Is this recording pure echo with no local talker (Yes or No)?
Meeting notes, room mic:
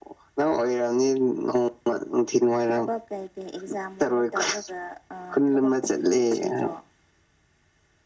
Yes